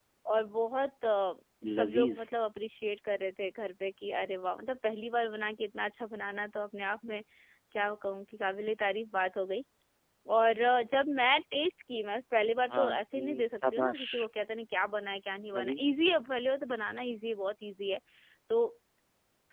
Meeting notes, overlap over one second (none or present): present